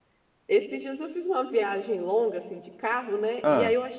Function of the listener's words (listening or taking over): listening